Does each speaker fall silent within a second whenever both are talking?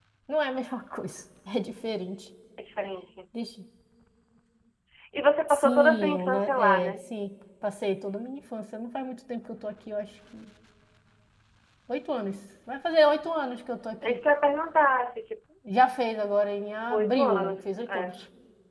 No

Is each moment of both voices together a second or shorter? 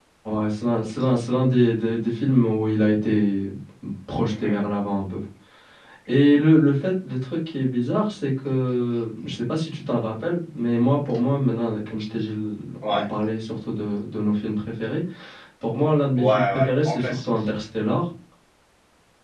No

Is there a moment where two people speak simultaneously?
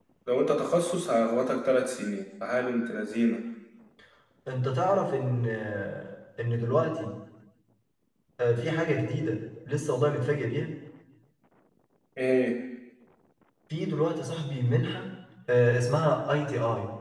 No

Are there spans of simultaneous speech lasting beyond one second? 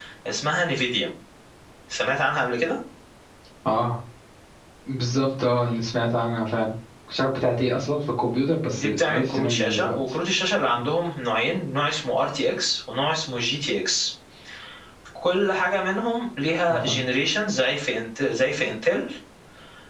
Yes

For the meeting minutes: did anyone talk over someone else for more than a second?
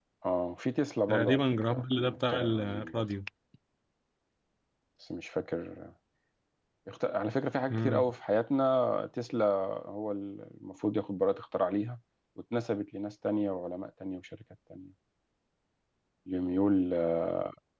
Yes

